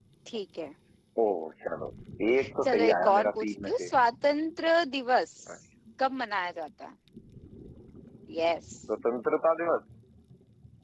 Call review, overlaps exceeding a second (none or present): present